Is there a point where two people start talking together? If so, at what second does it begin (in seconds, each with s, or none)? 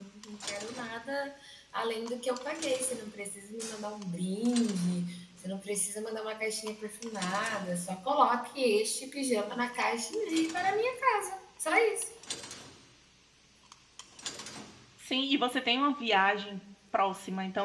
none